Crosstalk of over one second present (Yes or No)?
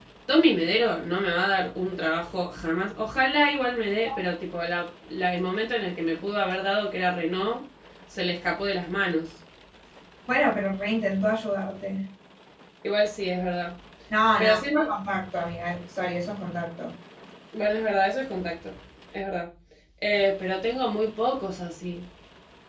No